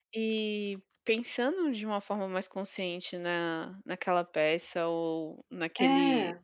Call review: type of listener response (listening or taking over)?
listening